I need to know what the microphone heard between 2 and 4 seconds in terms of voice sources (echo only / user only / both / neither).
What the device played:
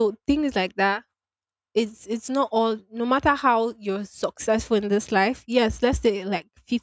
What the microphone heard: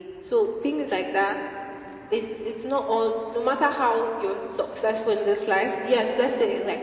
echo only